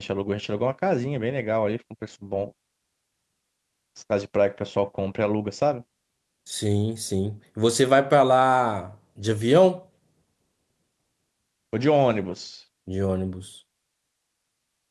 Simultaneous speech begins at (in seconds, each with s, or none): none